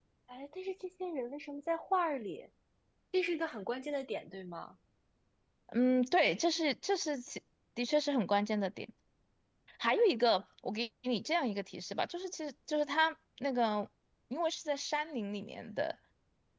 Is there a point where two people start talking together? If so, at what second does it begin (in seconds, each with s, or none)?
none